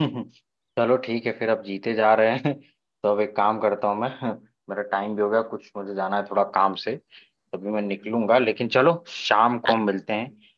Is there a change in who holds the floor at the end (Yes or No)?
No